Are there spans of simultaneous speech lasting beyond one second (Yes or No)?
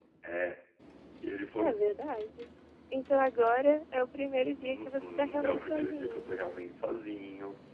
Yes